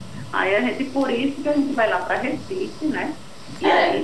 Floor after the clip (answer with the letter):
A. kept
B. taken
B